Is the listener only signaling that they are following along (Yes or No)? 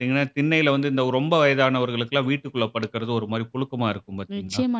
No